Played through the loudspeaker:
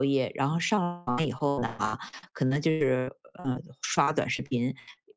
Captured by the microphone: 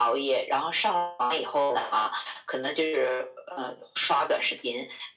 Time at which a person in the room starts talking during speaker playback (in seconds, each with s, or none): none